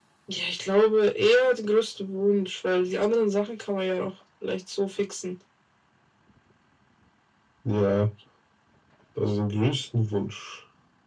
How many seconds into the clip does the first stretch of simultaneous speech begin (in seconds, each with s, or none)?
none